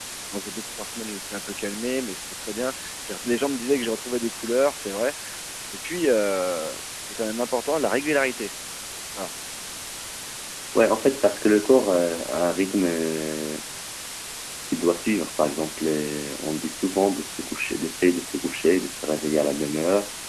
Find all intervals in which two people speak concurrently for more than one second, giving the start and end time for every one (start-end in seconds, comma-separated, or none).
none